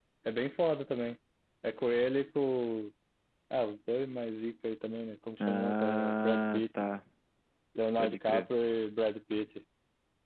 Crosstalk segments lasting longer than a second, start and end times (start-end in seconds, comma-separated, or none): 5.4-6.6